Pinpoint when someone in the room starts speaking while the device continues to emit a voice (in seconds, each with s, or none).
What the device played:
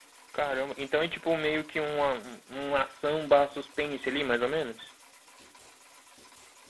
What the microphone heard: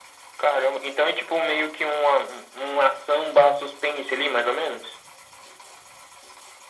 none